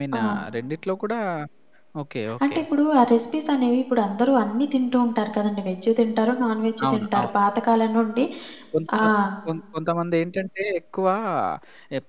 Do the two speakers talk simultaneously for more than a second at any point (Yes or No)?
No